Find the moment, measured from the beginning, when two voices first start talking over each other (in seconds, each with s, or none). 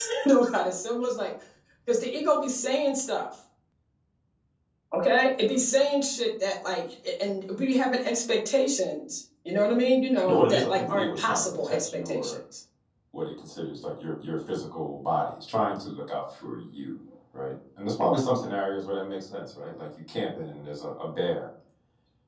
10.2 s